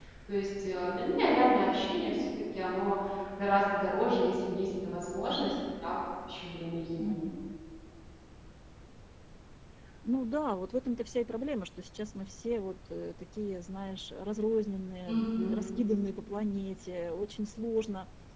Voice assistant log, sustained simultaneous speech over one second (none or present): none